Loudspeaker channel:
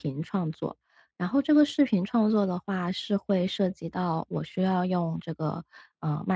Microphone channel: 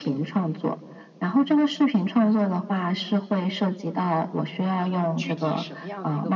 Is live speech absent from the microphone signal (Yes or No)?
No